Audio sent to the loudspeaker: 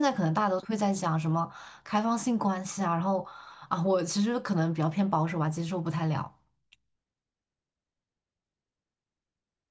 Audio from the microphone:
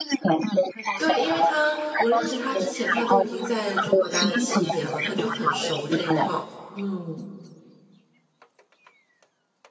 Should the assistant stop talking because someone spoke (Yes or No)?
Yes